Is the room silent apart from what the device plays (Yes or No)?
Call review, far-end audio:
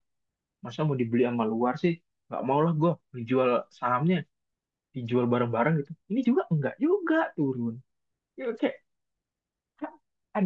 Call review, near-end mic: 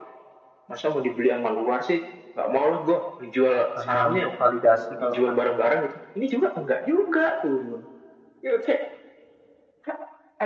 No